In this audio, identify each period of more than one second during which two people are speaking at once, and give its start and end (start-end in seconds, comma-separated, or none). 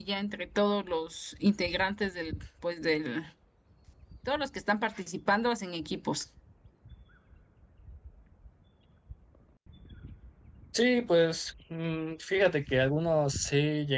none